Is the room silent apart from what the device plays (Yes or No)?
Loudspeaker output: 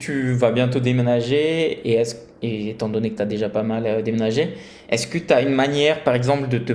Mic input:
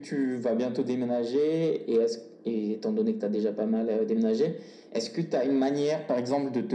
Yes